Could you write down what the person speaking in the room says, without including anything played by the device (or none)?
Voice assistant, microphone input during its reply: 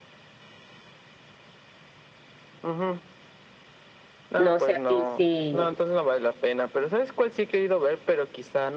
No sé a ti si,